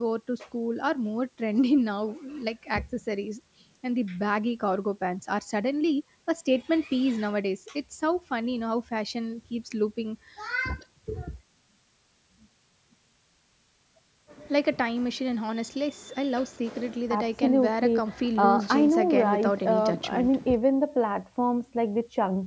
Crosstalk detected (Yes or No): Yes